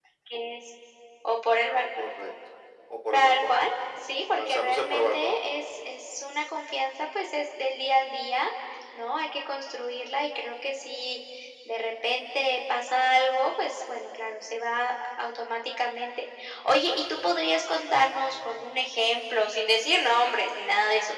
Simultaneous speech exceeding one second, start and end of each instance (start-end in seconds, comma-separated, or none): 4.3-5.6